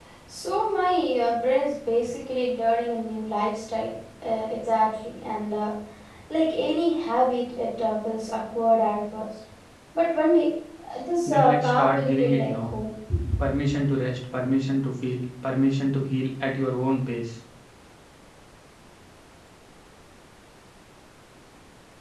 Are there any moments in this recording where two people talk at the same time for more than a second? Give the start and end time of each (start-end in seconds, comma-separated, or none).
11.3-12.7